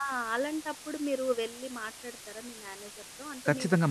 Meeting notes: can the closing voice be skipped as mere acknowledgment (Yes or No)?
No